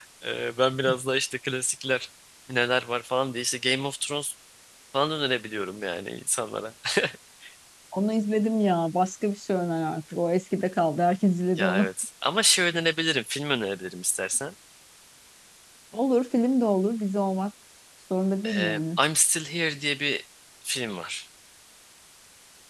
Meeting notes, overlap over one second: none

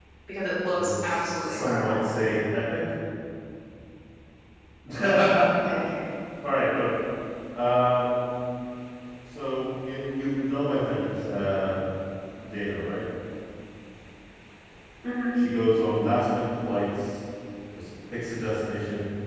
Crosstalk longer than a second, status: present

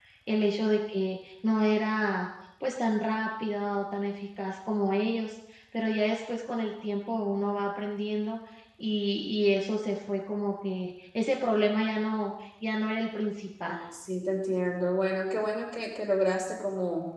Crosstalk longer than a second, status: none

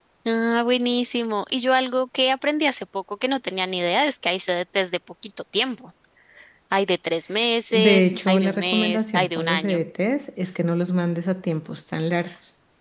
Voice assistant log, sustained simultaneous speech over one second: present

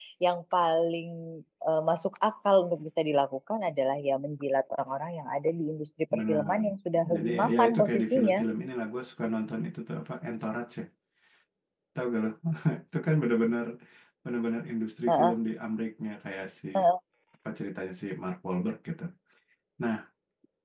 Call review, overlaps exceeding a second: present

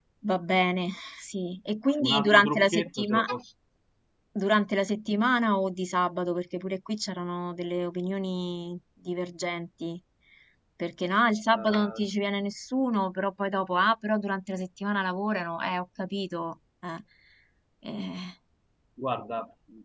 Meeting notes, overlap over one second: present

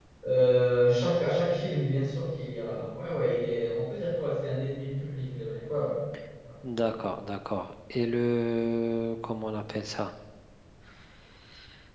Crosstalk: none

